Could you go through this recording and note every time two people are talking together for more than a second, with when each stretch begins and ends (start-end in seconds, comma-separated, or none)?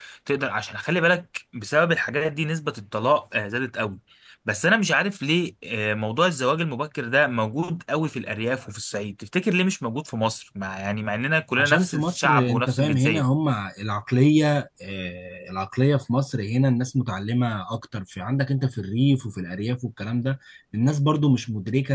11.6-13.3